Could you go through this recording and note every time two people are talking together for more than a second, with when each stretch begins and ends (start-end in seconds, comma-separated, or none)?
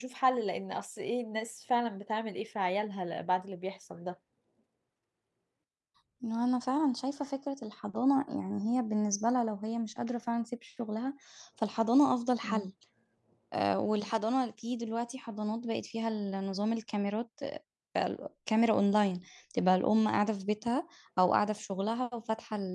none